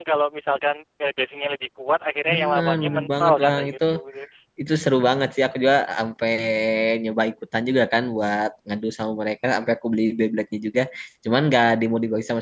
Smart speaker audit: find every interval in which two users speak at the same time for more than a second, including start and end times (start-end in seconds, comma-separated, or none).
2.3-3.7